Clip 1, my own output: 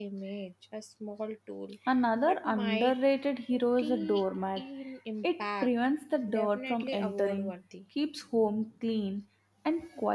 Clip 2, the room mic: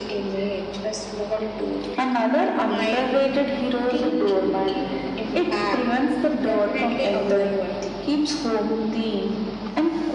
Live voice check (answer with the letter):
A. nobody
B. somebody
A